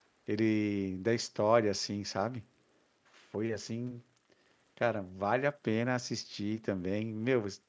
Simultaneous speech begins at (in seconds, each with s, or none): none